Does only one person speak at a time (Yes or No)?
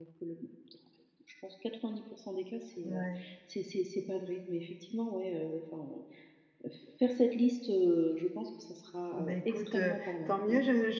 No